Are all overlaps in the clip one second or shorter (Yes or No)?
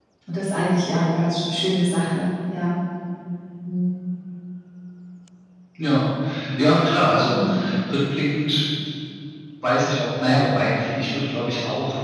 Yes